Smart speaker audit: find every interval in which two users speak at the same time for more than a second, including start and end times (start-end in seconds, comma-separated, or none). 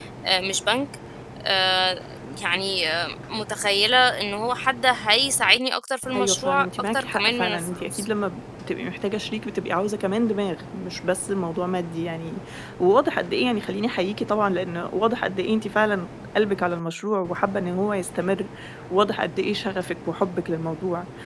6.2-8.1